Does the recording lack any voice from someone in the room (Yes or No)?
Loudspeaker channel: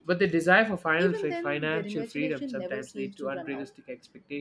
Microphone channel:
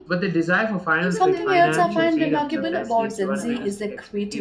No